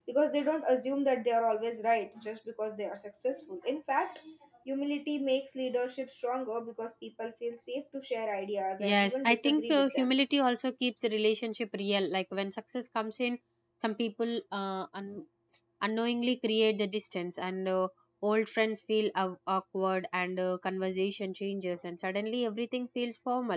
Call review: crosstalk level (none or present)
present